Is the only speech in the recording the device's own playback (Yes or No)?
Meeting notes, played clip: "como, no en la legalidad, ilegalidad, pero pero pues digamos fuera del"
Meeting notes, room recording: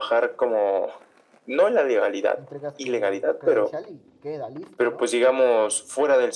No